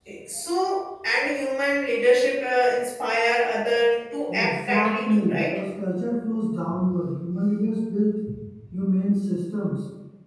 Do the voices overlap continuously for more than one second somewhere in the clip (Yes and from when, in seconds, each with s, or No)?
Yes, from 4.3 s